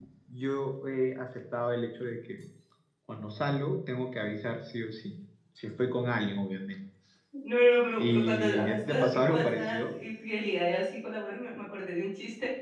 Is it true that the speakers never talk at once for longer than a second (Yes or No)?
No